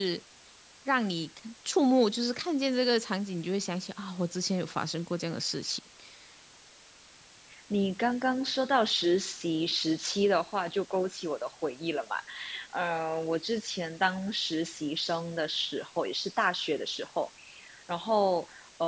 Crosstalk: none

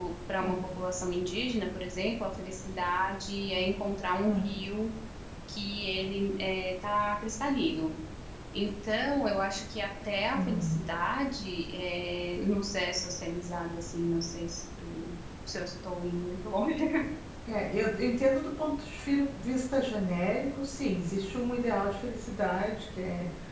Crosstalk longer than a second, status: none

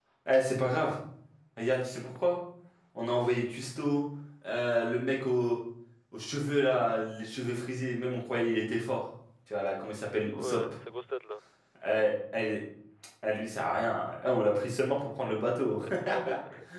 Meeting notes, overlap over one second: none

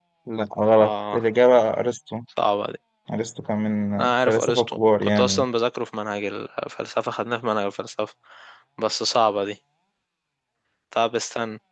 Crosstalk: present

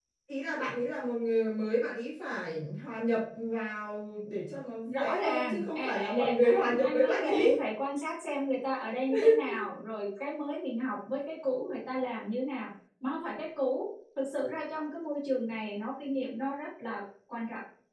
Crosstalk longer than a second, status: present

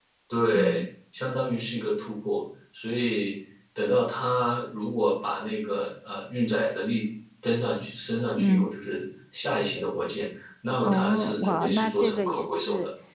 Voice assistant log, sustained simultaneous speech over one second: present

